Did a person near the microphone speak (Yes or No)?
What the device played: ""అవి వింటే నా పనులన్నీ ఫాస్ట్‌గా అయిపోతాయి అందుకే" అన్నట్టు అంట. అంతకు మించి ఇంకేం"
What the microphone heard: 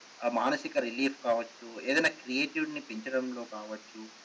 Yes